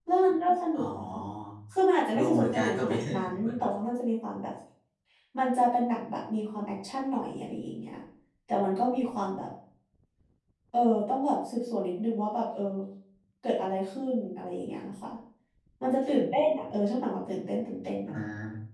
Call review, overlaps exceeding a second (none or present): present